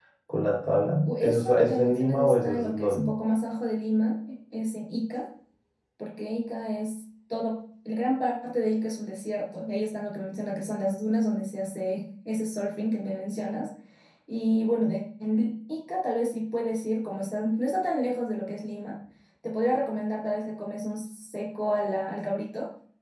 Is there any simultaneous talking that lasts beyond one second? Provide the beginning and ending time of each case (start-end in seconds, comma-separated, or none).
1.1-3.1